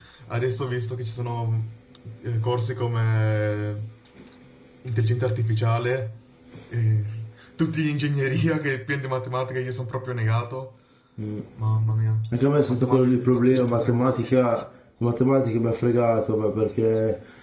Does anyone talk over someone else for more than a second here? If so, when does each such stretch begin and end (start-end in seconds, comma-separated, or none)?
12.7-14.3